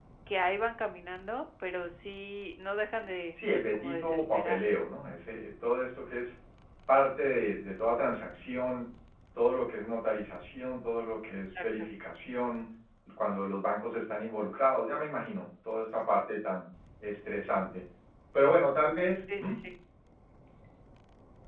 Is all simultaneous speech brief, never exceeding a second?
No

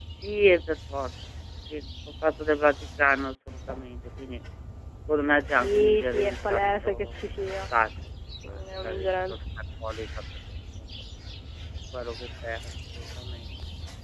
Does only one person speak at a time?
No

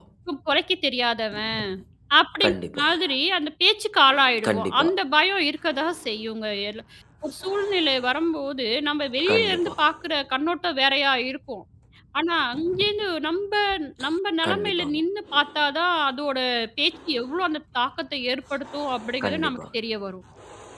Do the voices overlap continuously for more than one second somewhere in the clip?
No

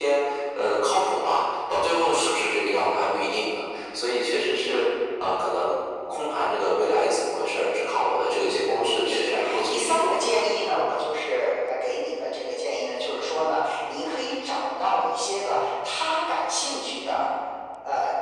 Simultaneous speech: Yes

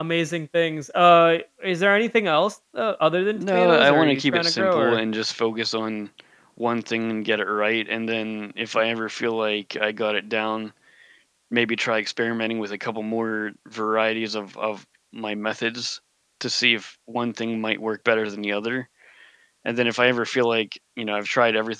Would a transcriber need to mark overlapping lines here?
Yes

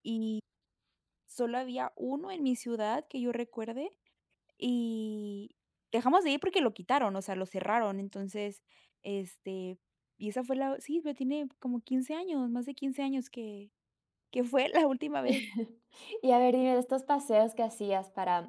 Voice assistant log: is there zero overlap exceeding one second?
Yes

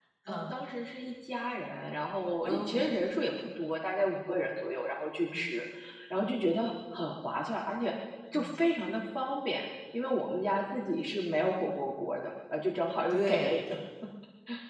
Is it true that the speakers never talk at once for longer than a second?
Yes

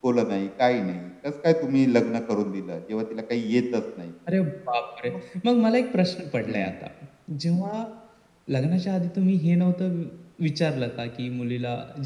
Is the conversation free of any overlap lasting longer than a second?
Yes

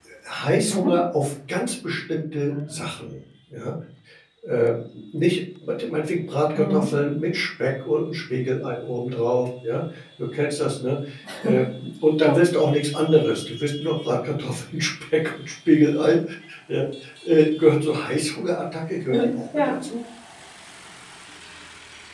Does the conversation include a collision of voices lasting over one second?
No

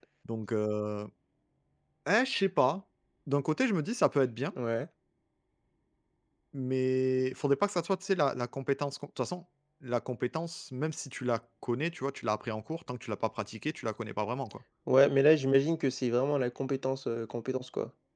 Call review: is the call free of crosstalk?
Yes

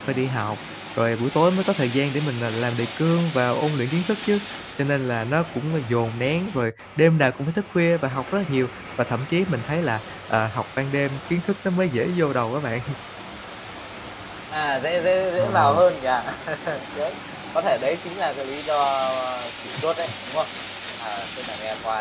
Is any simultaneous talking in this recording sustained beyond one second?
No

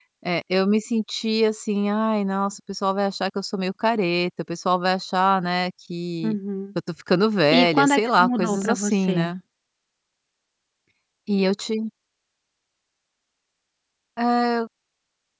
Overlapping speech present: Yes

